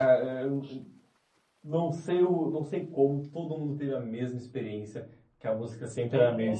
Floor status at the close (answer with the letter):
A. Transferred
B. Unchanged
B